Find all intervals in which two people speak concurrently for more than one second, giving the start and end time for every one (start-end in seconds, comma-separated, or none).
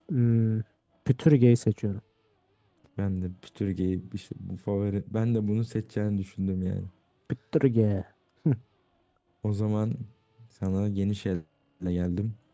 none